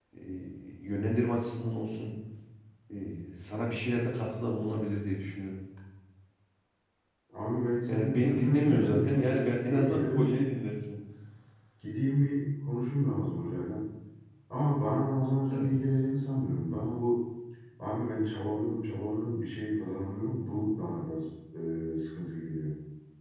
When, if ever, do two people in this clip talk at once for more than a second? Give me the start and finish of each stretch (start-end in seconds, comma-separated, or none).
7.9-10.3